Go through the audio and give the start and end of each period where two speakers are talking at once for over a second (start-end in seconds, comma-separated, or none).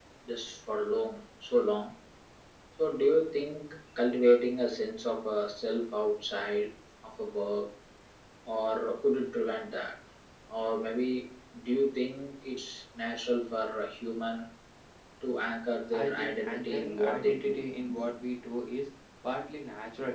15.9-17.6